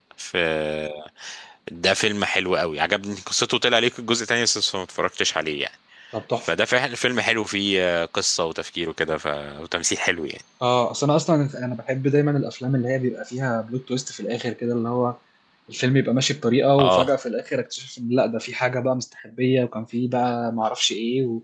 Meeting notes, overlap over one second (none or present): none